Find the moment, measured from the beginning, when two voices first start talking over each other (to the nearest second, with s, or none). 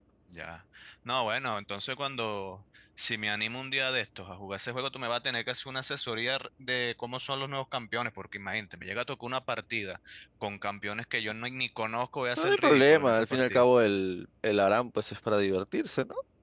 12 s